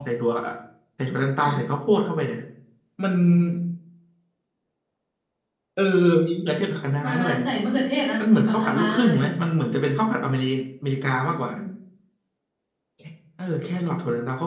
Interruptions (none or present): present